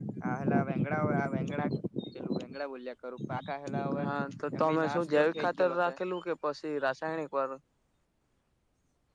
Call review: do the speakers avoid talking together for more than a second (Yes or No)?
No